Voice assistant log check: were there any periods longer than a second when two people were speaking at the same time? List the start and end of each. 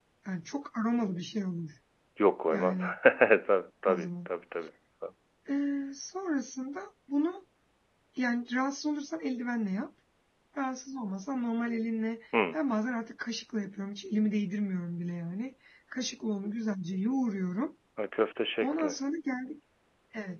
none

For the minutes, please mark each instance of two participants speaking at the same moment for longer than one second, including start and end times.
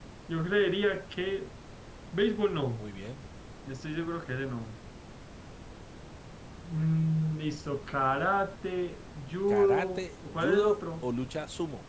9.5-11.1

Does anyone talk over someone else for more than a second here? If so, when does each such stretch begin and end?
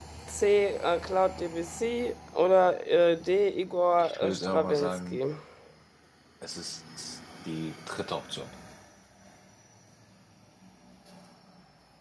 4.0-5.2

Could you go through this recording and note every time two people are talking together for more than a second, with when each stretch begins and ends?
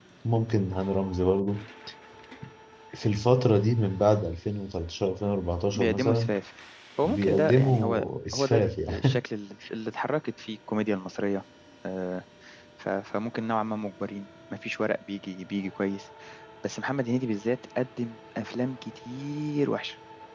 7.0-9.2

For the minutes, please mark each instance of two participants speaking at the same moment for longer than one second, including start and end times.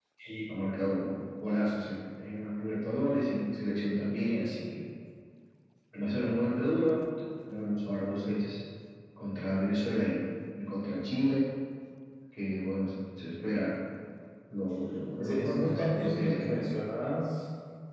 15.2-16.6

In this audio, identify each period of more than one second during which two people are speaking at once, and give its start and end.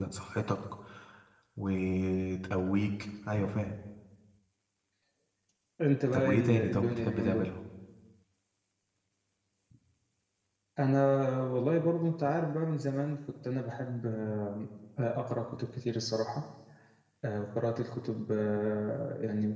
6.1-7.5

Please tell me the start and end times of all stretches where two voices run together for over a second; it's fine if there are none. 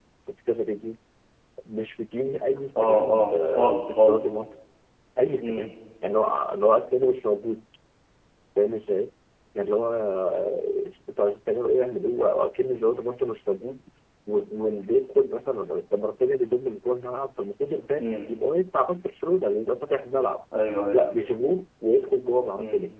2.8-4.3

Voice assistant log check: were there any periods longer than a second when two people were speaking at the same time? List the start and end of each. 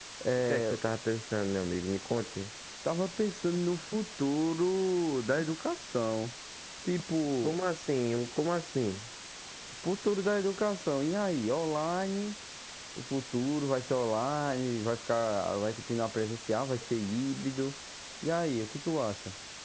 none

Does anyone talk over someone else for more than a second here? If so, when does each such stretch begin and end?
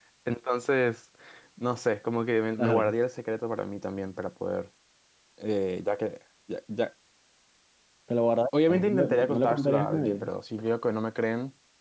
8.7-10.3

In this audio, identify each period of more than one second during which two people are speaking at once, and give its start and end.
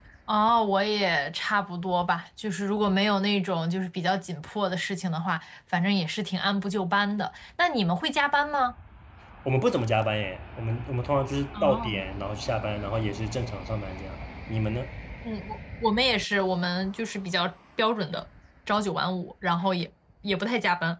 none

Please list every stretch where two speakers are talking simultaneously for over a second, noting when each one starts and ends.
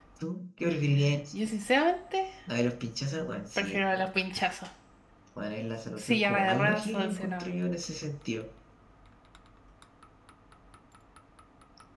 6.0-7.5

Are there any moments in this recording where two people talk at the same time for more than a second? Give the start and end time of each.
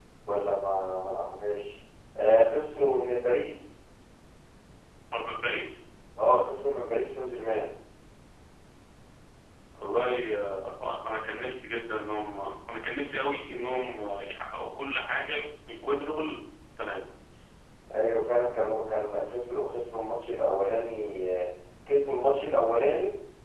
none

